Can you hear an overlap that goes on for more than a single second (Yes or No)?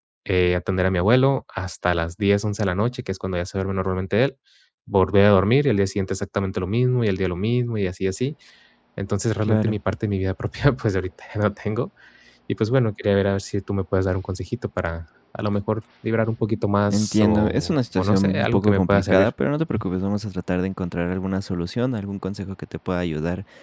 Yes